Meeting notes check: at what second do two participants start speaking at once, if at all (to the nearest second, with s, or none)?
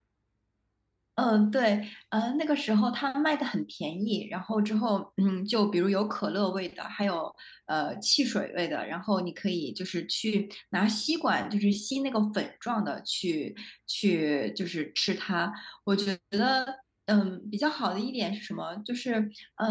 none